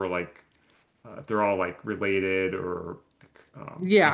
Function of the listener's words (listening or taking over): taking over